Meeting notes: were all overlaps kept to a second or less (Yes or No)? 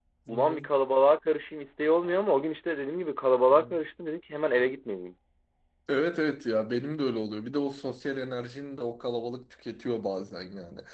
Yes